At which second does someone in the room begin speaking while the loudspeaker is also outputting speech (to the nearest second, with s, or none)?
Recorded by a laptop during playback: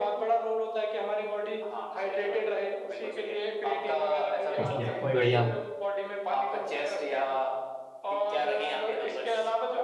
5 s